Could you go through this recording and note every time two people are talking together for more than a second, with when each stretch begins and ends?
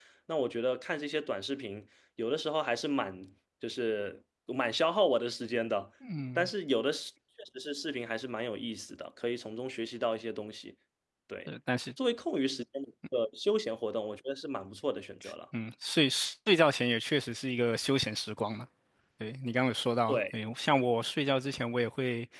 none

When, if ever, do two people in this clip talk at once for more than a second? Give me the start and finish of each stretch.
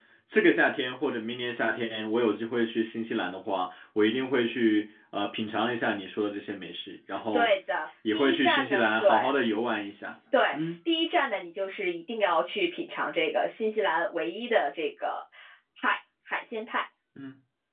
8.1-9.3

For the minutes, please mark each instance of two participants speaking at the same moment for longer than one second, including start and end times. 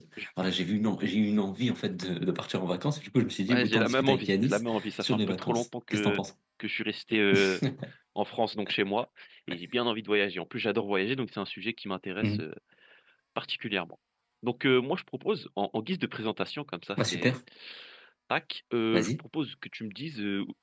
3.4-6.2

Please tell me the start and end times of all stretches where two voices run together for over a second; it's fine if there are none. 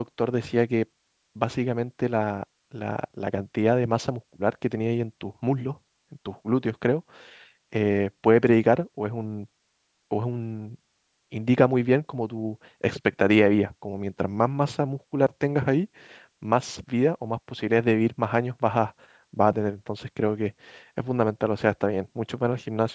none

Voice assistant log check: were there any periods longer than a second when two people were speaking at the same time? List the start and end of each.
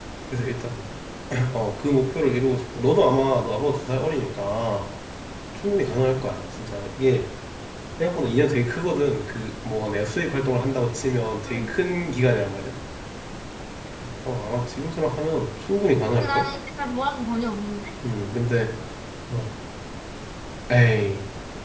none

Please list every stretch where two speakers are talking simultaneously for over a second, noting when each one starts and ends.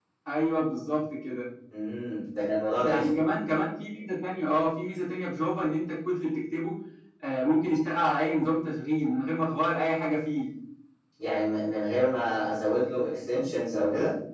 none

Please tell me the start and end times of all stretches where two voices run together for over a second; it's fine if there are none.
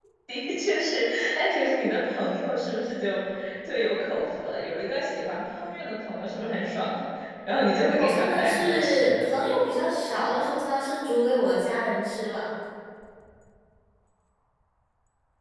8.0-9.2

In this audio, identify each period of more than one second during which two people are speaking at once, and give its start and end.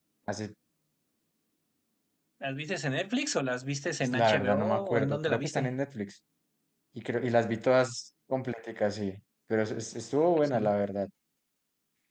4.1-5.8

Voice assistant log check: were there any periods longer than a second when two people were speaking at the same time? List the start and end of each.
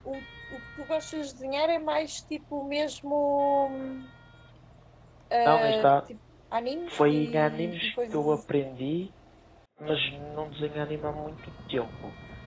6.9-8.4

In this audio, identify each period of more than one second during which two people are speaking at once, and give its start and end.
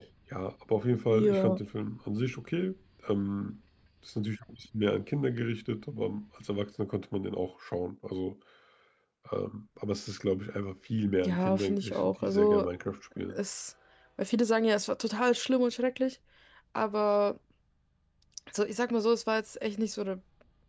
11.2-12.7

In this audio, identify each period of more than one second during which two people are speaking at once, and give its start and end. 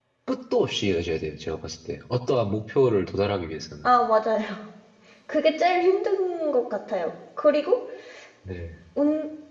none

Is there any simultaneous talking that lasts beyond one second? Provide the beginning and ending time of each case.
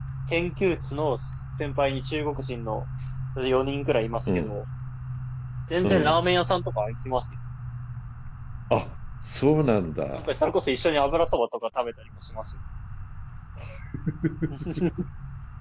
none

